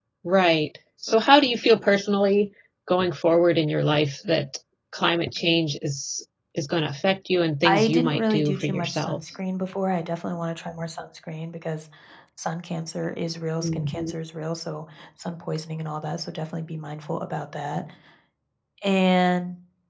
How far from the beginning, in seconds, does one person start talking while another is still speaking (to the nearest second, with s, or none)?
8 s